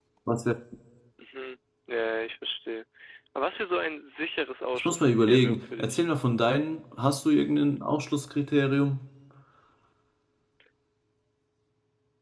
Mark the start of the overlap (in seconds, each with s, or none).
4.7 s